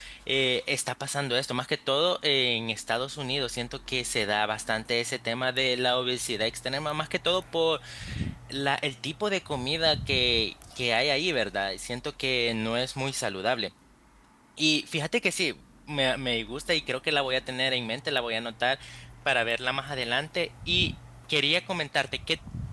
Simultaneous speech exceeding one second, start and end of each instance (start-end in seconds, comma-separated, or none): none